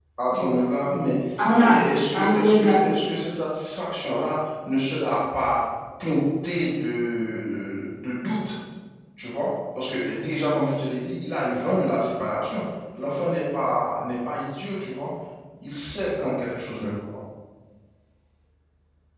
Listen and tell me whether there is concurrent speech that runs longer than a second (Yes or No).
Yes